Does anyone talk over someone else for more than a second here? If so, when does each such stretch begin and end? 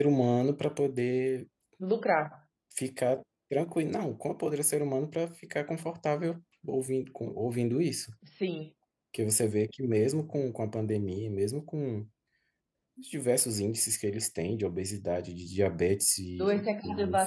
none

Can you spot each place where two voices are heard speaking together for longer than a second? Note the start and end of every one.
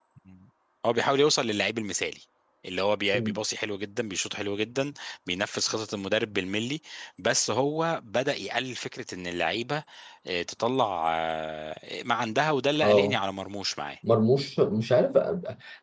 none

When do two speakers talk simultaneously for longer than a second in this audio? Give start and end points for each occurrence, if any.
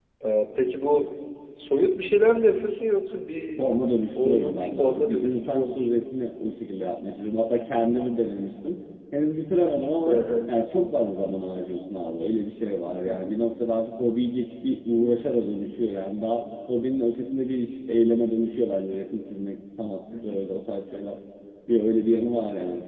4.2-6.0

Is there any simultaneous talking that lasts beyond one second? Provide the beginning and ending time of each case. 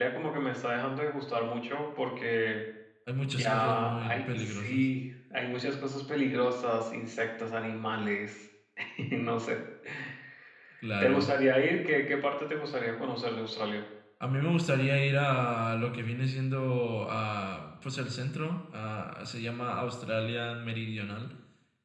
3.2-4.9

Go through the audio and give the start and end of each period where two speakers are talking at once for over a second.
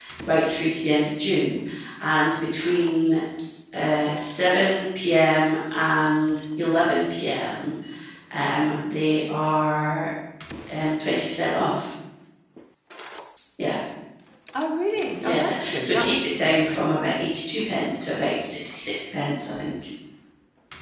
15.2-17.1

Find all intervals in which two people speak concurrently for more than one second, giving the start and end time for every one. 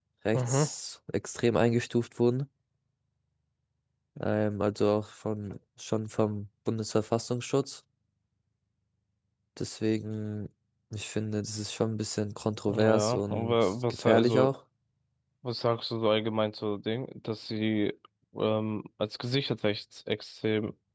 12.7-14.5

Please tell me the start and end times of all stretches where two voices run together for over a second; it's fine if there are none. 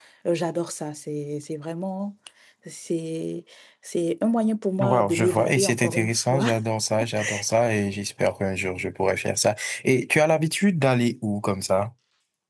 4.8-6.4

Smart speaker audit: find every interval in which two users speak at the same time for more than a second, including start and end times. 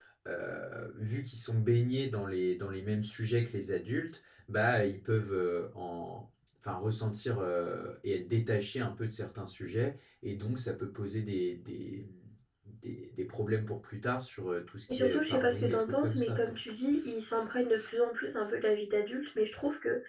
14.9-16.6

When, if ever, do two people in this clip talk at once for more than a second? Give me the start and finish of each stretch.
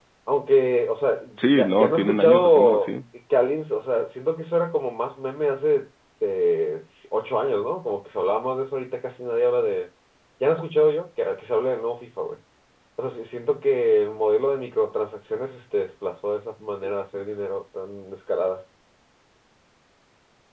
1.4-2.9

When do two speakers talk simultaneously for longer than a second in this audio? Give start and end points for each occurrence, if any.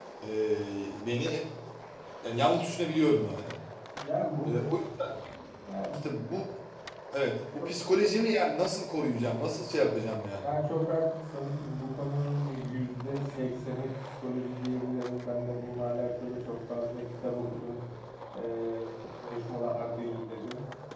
none

